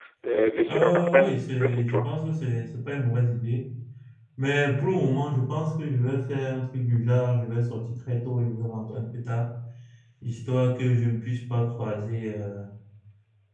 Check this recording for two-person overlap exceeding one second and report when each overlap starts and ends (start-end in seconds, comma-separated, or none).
0.7-2.1